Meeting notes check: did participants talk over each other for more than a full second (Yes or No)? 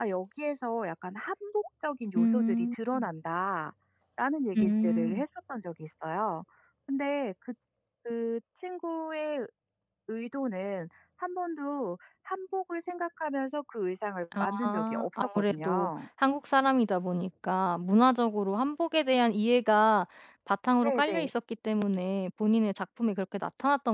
Yes